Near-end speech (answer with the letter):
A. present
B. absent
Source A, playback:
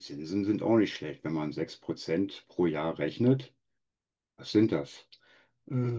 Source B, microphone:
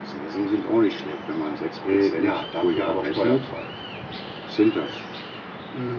A